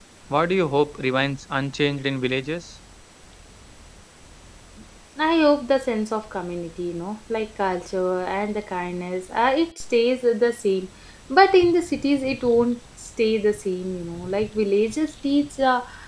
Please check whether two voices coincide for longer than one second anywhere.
No

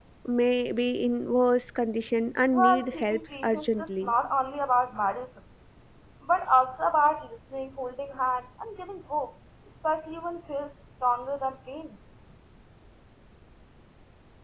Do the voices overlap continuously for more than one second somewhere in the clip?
Yes, from 2.5 s

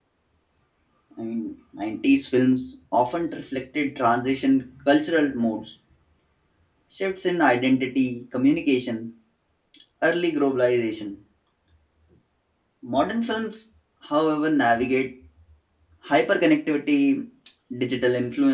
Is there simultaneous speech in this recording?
No

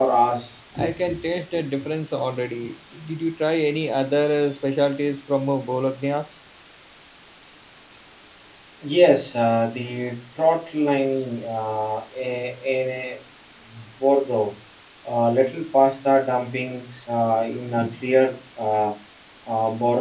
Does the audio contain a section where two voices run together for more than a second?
No

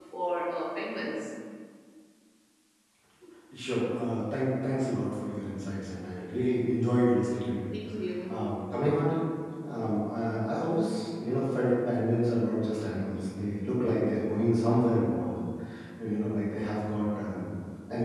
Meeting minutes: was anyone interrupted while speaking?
No

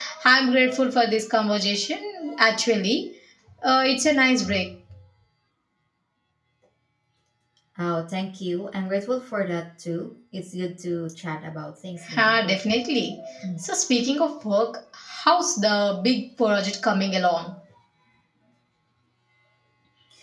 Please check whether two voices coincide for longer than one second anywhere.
No

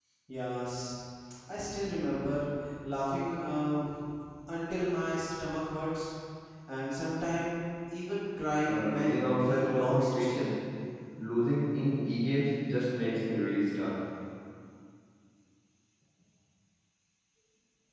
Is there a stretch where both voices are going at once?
Yes, from 8.7 s

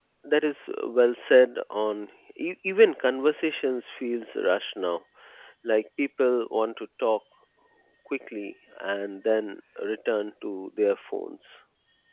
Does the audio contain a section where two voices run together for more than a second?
No

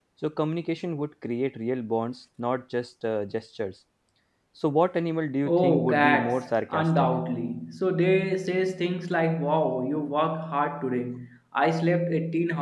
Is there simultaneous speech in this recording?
Yes, from 5.5 s

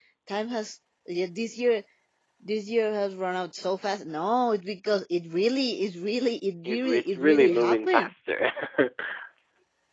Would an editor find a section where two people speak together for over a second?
Yes, from 6.6 s

